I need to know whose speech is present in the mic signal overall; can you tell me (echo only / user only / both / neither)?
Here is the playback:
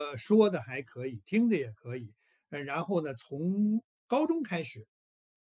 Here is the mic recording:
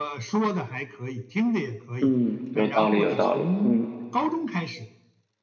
both